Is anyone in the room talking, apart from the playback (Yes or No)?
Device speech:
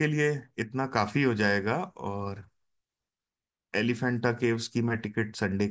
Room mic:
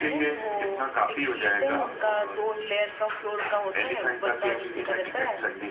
Yes